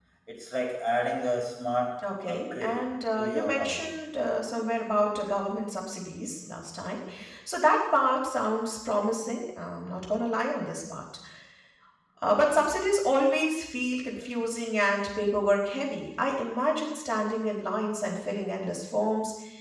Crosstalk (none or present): present